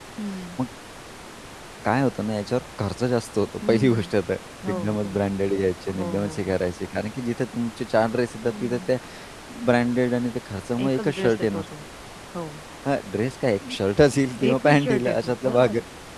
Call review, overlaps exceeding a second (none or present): present